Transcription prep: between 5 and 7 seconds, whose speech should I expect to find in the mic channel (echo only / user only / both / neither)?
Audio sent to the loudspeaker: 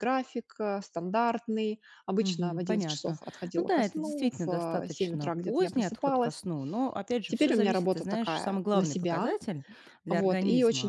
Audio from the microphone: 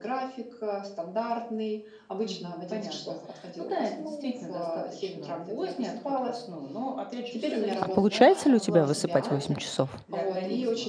echo only